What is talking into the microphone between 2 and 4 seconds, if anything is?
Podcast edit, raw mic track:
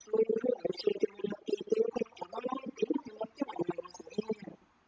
echo only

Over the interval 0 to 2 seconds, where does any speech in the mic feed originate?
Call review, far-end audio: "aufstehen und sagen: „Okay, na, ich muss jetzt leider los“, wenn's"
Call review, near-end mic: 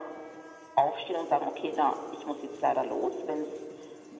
echo only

